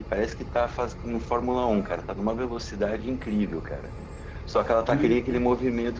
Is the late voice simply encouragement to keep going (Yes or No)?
Yes